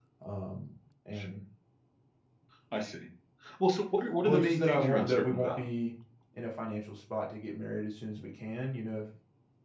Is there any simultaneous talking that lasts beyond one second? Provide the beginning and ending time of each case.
4.2-5.6

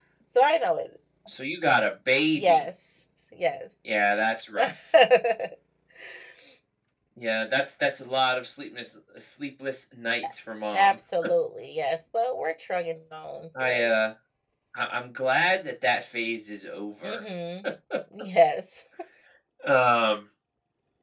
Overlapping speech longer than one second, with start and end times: none

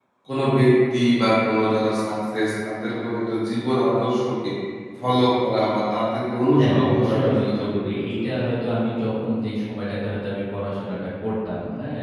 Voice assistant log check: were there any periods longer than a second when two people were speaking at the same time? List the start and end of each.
6.6-8.3

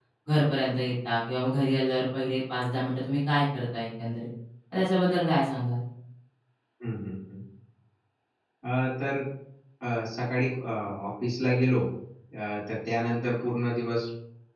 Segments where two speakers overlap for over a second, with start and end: none

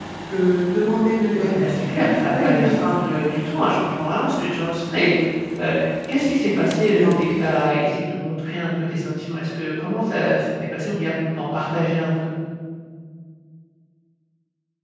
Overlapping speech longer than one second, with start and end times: 1.3-2.8

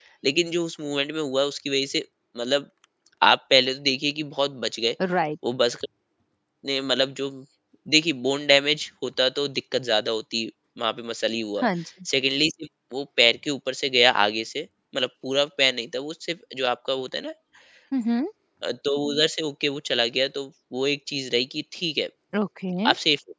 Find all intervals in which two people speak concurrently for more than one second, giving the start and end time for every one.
none

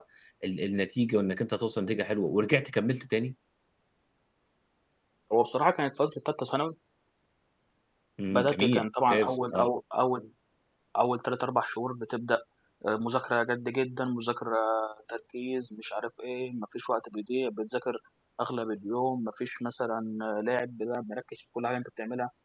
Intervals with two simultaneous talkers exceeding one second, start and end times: 8.3-9.7

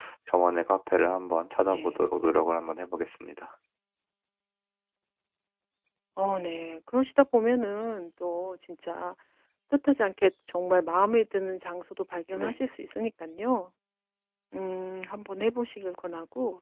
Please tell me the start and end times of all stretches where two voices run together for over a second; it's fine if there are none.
none

